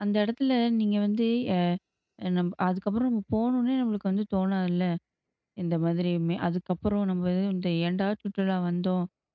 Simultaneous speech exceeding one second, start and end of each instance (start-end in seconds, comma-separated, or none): none